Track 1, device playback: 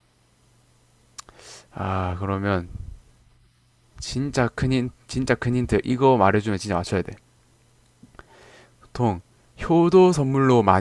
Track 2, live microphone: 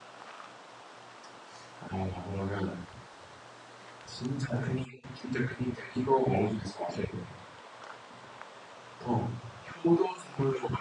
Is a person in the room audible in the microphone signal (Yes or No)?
No